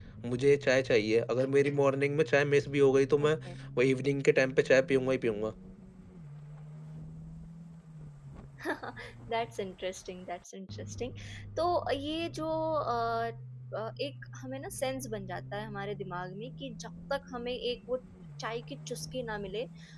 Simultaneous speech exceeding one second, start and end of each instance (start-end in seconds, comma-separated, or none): none